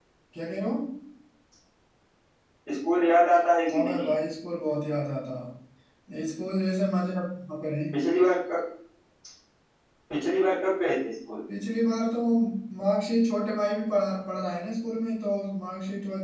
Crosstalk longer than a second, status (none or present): none